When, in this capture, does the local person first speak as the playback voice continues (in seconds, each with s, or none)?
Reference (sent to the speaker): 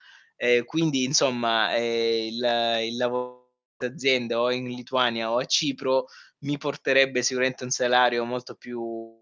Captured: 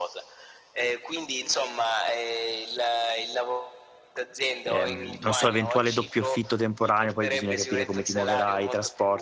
4.6 s